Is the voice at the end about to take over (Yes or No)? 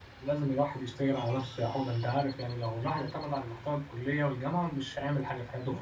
Yes